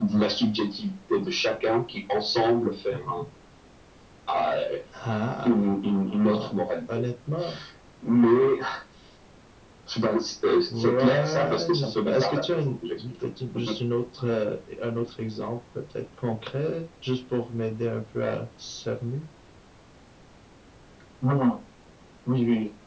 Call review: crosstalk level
present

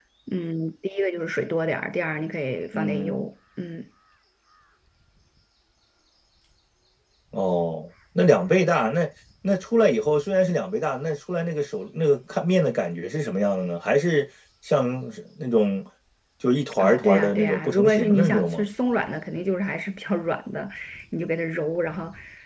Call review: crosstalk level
present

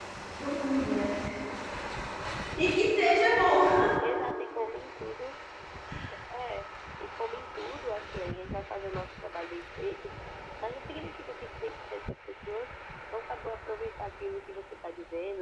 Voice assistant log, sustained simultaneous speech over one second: none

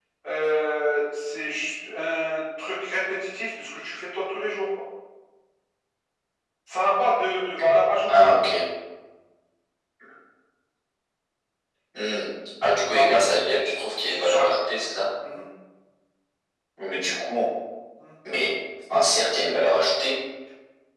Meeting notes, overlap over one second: none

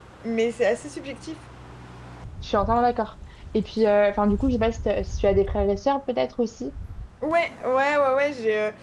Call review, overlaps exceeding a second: none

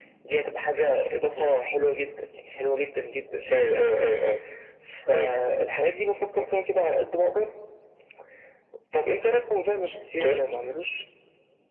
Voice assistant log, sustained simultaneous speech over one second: none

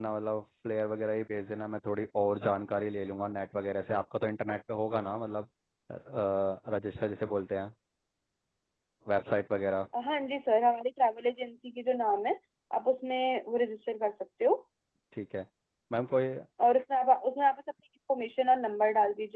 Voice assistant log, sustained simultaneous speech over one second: none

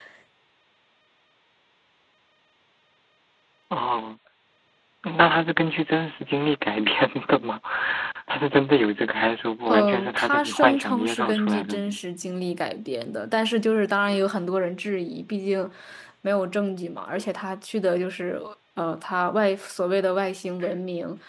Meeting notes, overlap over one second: present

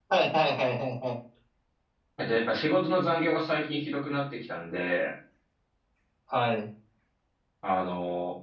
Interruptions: none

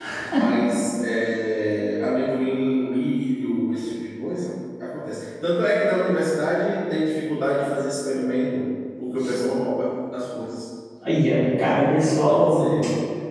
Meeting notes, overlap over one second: none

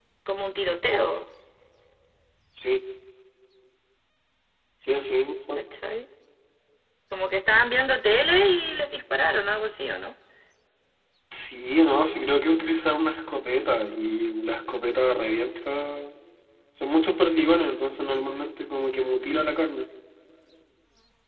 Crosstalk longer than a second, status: none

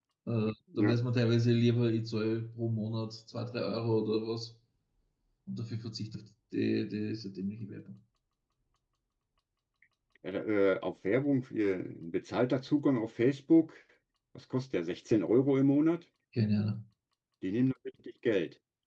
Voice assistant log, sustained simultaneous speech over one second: none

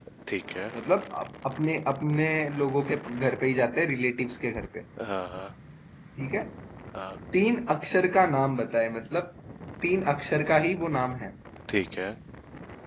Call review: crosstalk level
none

